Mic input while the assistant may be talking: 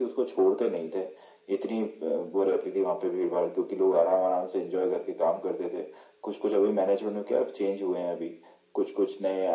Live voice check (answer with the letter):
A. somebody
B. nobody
B